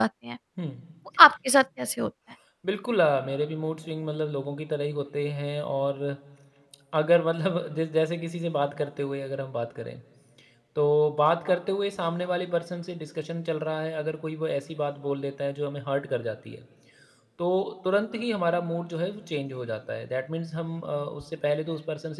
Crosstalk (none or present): none